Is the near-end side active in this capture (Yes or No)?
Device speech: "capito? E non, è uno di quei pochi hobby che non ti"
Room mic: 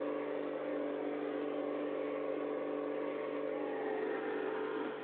No